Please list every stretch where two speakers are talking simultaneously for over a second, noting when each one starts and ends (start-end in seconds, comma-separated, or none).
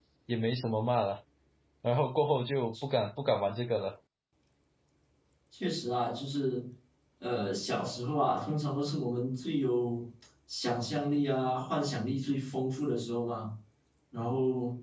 none